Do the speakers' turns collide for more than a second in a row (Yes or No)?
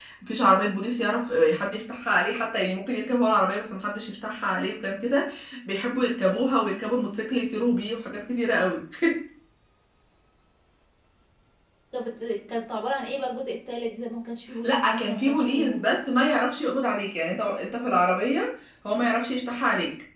Yes